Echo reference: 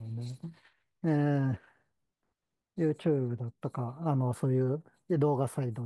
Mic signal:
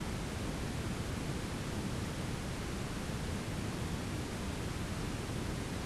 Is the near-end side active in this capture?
No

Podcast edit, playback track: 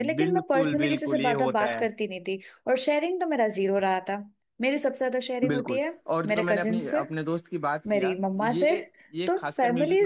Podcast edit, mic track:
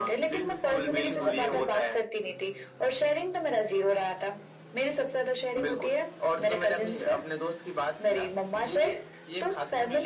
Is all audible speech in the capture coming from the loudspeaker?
No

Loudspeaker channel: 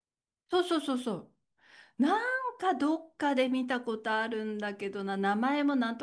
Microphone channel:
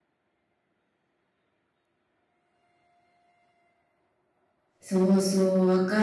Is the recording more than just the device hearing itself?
Yes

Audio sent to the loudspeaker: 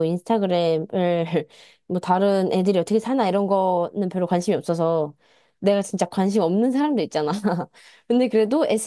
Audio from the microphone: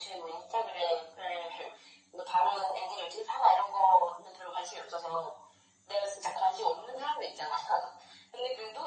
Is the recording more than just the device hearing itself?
No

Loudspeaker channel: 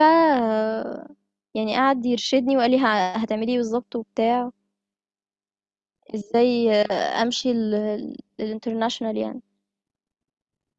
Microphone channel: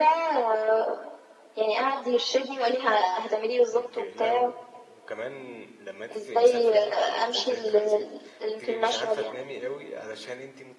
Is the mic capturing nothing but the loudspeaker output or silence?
No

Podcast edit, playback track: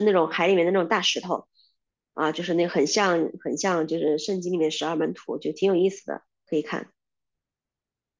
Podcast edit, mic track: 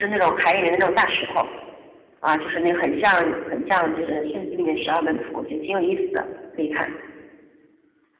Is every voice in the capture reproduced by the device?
Yes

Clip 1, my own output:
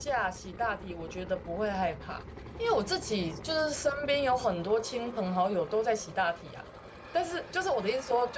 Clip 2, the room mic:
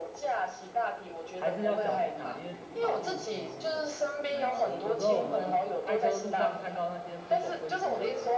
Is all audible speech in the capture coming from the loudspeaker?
No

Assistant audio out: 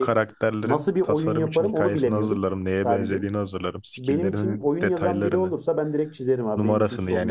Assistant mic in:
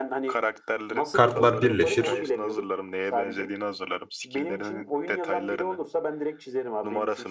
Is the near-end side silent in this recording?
No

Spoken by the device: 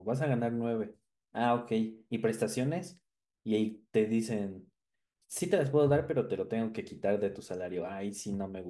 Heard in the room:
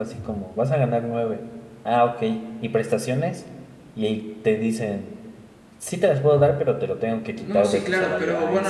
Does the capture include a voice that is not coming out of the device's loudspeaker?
Yes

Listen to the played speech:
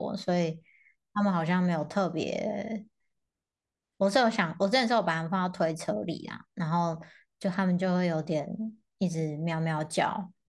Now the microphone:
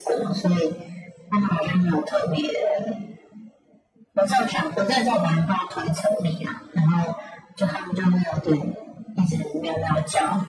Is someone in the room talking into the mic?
No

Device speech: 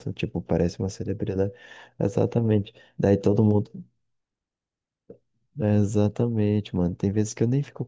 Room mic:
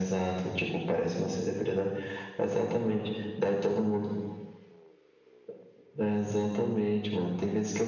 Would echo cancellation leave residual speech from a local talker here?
No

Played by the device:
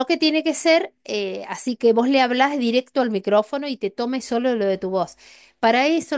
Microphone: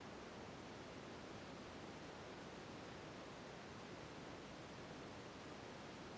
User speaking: No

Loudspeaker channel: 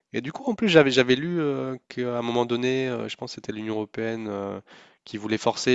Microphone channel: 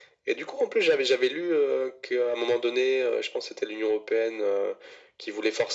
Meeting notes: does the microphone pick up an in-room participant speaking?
No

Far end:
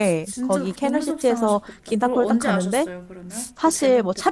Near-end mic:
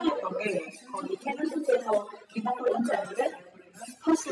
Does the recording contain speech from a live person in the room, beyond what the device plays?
No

